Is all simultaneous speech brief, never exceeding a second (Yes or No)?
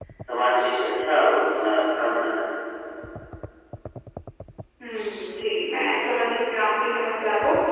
Yes